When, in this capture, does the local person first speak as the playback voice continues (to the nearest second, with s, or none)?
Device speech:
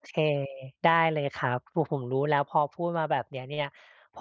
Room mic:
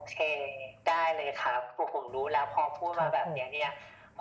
3 s